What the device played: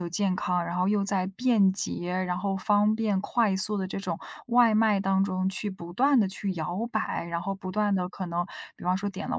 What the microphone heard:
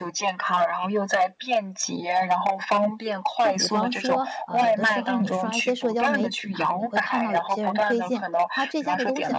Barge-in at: 3.4 s

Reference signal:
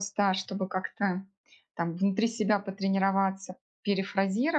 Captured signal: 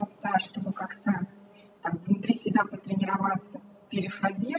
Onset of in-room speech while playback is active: none

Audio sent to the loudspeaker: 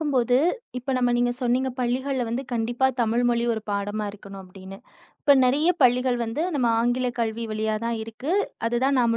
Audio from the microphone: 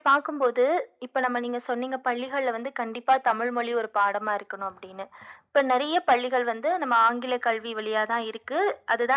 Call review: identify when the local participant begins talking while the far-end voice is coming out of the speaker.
none

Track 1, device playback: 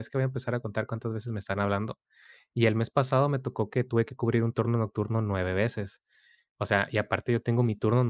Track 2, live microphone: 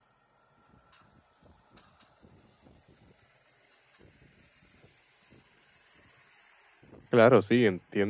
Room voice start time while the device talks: 7.1 s

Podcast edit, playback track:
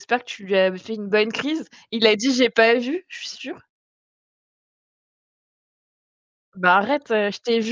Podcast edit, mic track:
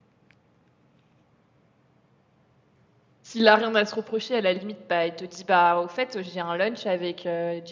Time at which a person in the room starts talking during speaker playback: 3.2 s

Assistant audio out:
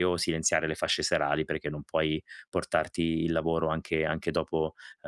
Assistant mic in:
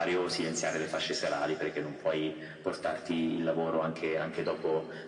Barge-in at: none

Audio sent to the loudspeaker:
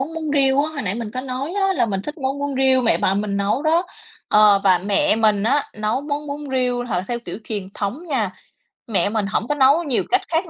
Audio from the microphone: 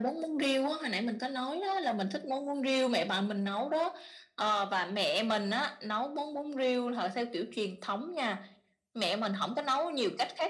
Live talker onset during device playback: none

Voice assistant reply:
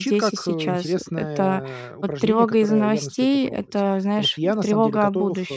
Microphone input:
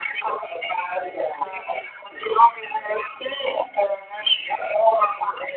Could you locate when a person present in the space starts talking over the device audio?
none

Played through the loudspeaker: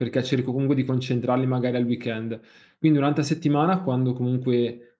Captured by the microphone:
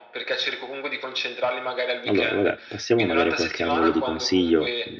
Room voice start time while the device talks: 2.0 s

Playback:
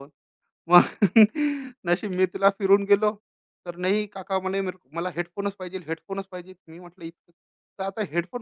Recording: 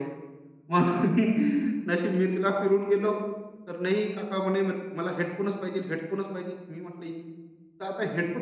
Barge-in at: none

